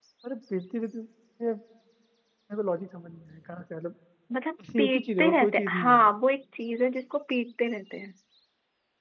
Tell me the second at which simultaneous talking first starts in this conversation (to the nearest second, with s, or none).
5 s